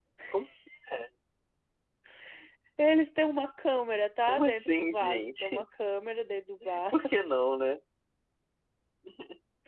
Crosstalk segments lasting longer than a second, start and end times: 4.2-5.7

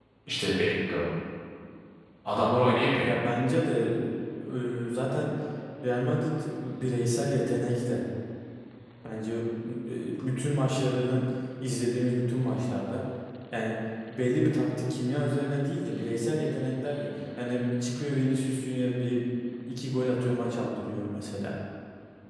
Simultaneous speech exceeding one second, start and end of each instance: none

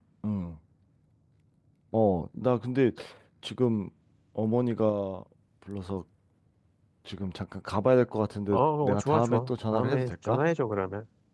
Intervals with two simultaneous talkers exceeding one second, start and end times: 8.5-10.4

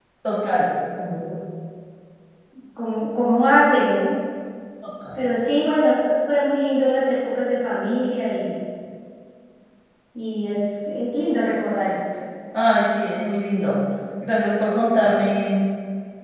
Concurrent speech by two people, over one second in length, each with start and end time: none

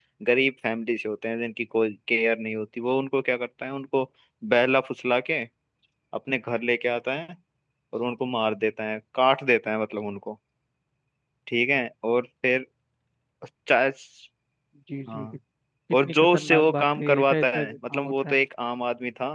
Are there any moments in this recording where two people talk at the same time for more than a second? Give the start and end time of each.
16.0-18.4

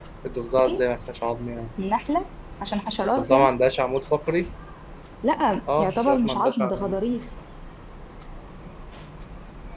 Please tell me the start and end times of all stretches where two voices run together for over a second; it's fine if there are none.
5.8-7.0

